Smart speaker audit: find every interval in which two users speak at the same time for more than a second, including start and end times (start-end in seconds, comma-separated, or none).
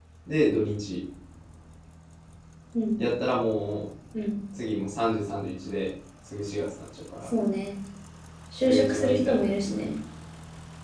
8.6-9.9